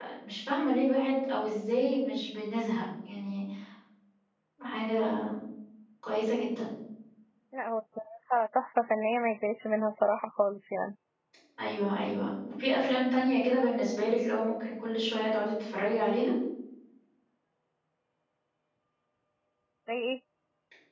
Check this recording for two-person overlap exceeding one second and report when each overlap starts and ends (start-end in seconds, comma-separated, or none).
none